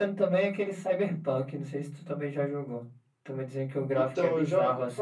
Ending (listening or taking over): taking over